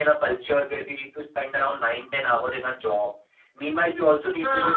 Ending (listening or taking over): listening